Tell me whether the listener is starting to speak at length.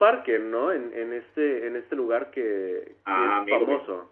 Yes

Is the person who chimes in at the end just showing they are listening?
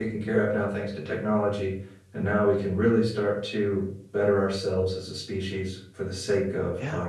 Yes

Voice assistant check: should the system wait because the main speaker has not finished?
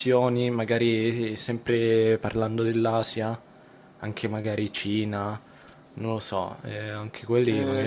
No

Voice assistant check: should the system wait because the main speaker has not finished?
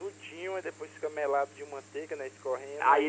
No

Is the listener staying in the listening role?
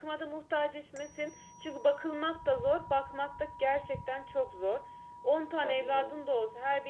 Yes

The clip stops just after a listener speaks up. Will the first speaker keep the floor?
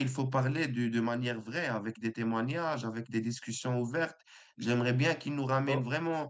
Yes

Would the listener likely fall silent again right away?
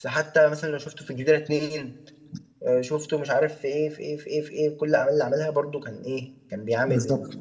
Yes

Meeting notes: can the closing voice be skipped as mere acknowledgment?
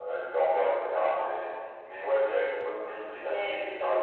Yes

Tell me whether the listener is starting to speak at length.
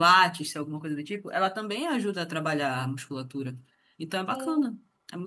Yes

